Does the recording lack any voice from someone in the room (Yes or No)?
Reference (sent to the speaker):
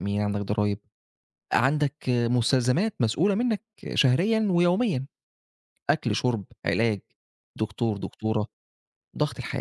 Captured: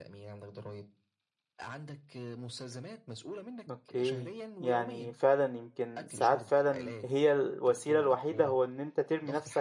No